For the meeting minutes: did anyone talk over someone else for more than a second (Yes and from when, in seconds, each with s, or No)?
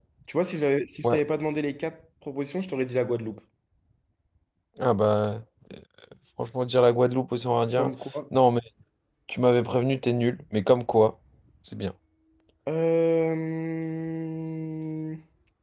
No